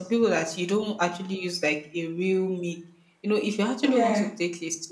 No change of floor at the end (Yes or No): Yes